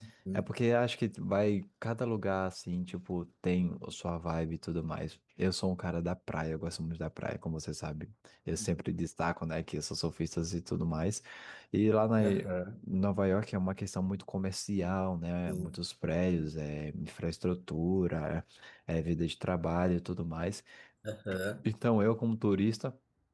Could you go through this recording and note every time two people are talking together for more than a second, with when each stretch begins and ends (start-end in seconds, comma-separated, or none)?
none